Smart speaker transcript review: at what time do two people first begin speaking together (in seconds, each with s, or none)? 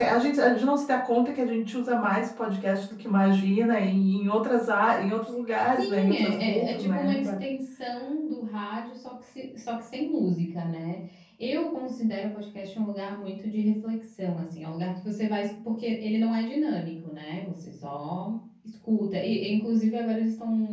5.8 s